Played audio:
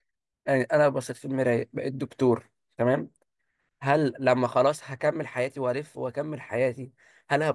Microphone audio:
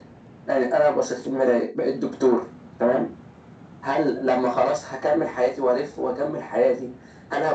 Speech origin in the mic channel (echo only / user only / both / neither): echo only